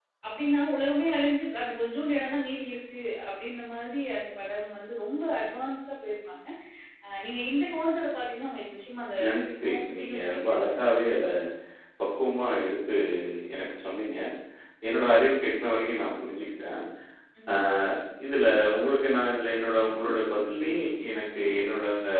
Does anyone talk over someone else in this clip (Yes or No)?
Yes